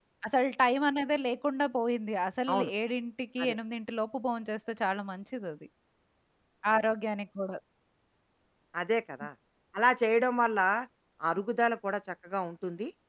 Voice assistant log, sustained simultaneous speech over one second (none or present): none